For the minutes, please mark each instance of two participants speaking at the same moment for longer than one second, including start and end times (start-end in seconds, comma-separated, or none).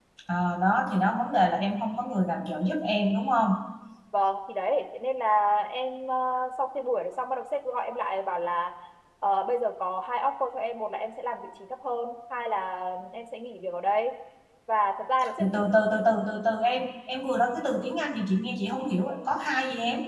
none